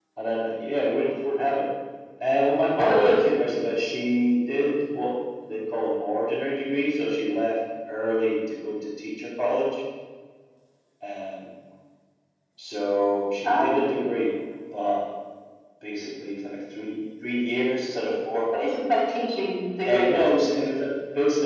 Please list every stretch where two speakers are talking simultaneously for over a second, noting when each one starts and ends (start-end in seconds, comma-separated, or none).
none